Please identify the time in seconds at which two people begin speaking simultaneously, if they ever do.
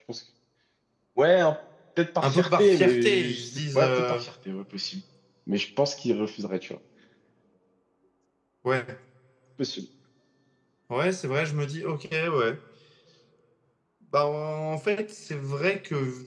2.2 s

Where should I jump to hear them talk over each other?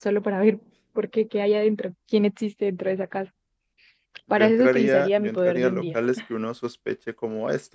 4.3 s

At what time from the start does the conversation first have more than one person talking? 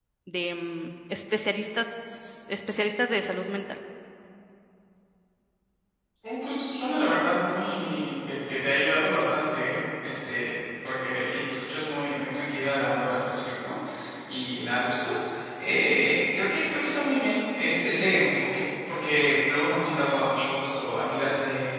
none

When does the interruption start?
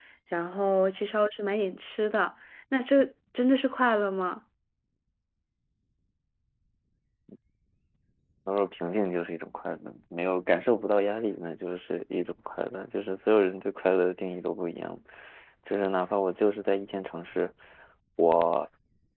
none

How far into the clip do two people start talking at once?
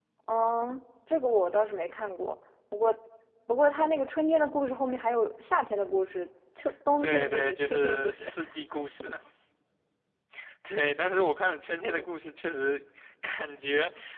7.0 s

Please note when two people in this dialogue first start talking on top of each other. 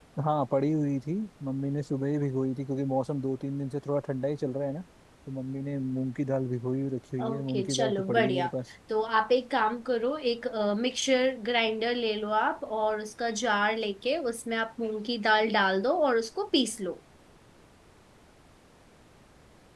7.2 s

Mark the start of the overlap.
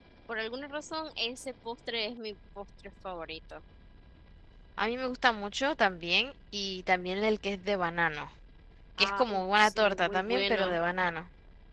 9.0 s

